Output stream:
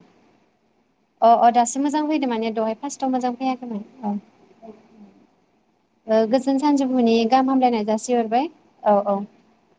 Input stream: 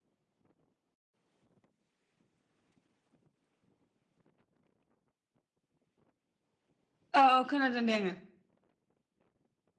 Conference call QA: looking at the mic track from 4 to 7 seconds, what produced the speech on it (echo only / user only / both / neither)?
neither